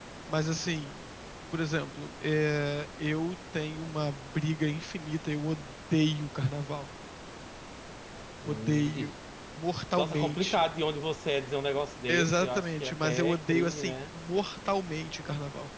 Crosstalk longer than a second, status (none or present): present